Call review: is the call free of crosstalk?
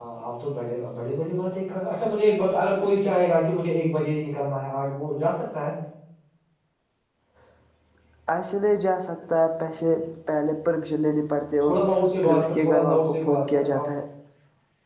No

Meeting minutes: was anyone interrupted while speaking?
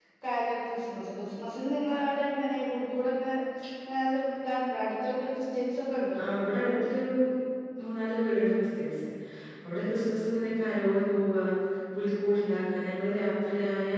No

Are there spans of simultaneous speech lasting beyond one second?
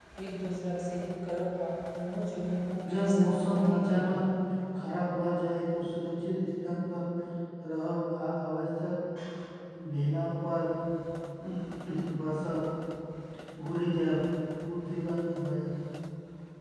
Yes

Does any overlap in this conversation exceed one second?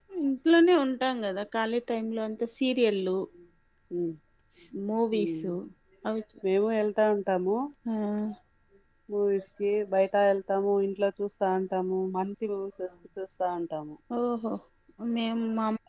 No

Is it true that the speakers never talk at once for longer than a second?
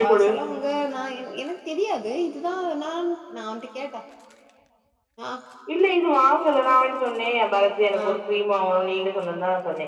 Yes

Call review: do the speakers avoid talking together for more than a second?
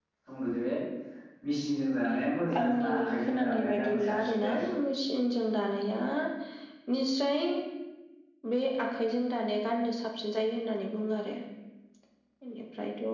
No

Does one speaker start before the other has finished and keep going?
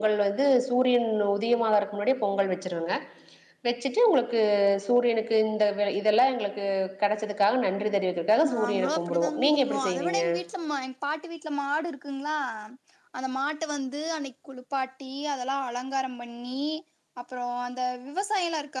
Yes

